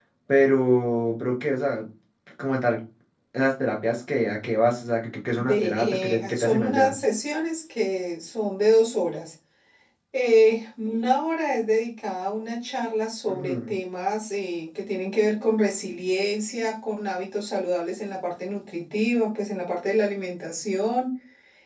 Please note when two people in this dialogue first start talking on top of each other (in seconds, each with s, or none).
5.4 s